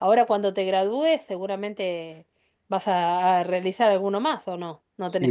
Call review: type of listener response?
taking over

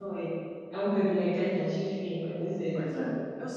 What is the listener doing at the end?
taking over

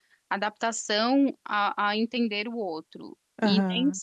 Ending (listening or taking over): listening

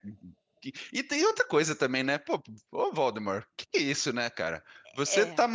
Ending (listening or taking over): listening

